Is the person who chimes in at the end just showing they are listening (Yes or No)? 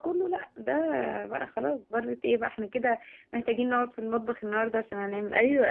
No